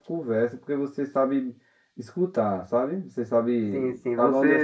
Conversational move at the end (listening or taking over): taking over